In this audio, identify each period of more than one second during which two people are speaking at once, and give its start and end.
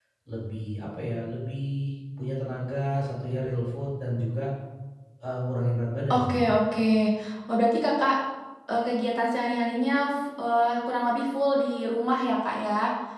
none

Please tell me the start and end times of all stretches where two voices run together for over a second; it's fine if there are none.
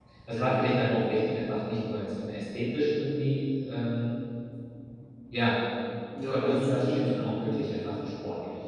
6.3-7.5

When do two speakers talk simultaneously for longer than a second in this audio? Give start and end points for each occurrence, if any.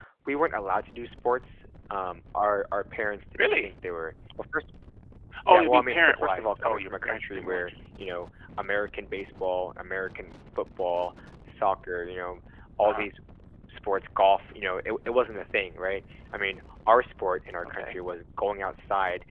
5.5-7.7

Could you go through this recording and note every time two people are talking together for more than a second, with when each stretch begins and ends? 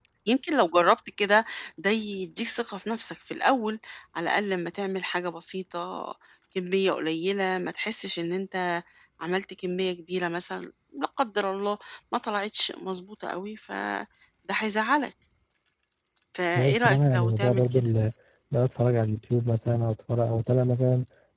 16.6-17.9

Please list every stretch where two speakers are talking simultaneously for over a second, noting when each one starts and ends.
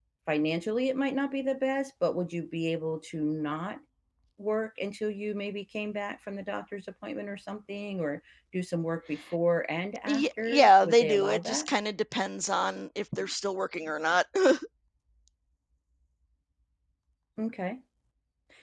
10.1-11.7

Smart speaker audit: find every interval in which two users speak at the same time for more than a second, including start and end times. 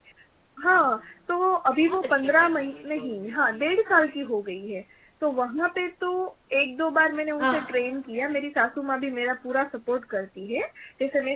1.7-3.6

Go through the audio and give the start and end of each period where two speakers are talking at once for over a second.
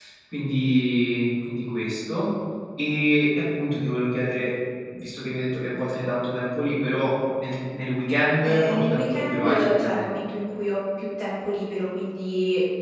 8.4-10.1

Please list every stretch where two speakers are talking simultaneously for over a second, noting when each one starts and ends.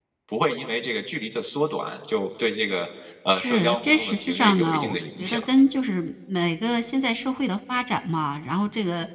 3.3-5.4

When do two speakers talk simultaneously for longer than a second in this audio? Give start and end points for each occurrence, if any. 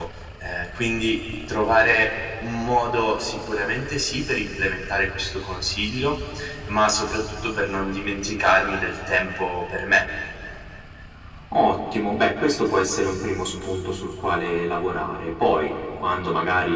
none

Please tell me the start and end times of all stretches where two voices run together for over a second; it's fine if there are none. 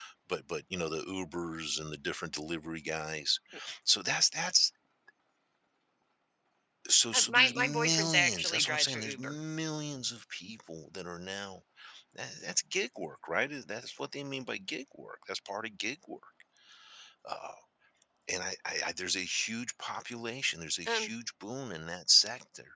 7.1-9.4

